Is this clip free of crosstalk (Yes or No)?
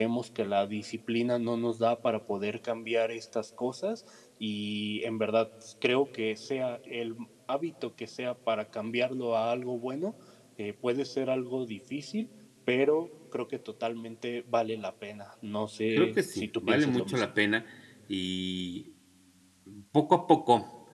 No